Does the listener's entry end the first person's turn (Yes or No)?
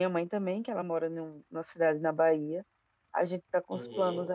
No